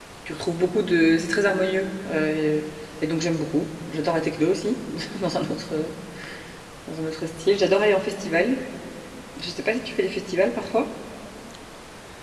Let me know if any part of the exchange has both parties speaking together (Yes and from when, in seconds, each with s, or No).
No